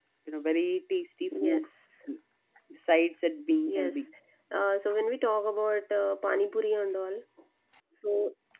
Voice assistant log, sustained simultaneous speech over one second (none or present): none